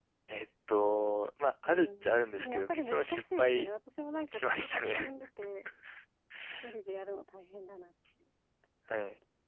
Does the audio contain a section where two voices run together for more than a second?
Yes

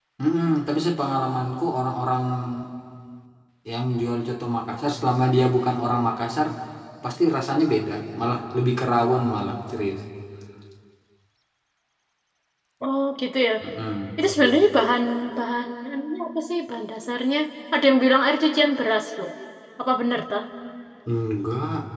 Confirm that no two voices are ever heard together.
Yes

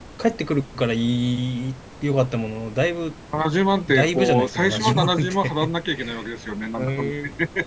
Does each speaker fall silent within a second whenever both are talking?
No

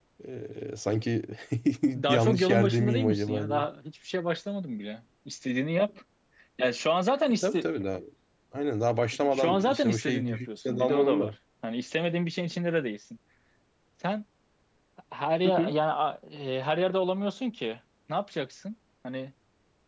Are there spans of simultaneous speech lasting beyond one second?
Yes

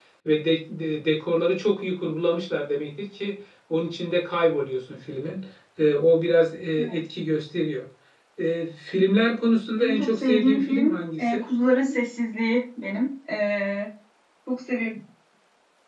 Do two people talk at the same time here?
Yes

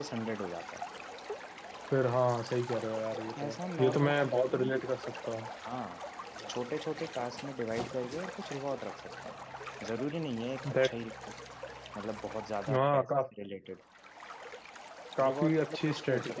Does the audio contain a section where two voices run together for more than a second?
Yes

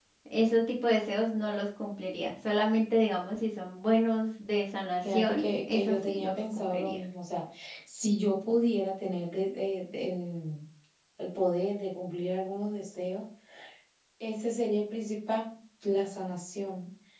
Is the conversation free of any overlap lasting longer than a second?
No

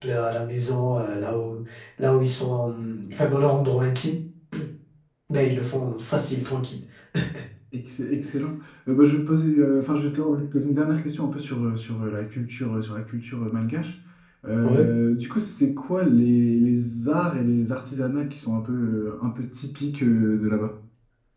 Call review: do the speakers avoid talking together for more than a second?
Yes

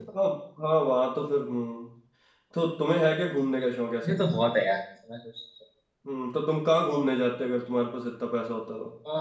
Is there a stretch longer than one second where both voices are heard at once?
No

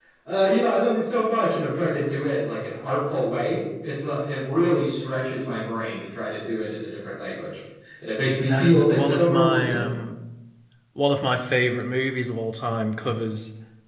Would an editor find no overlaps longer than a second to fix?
No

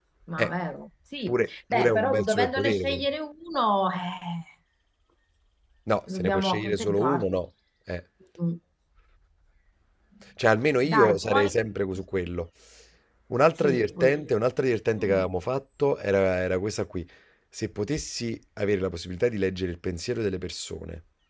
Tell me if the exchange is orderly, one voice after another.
No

